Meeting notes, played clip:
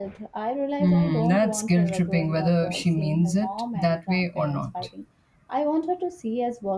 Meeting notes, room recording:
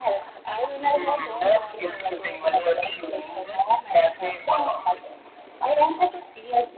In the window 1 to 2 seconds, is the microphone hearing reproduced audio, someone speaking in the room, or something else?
echo only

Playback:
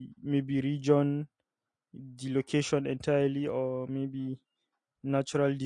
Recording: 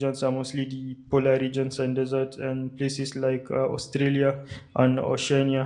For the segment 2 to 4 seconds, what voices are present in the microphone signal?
user only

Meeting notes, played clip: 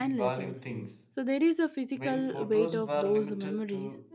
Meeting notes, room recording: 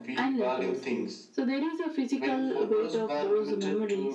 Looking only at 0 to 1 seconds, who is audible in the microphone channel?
echo only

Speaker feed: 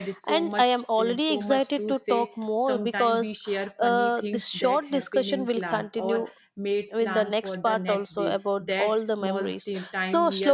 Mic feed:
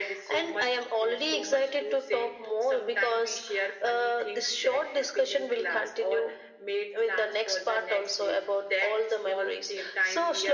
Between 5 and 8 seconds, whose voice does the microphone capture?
echo only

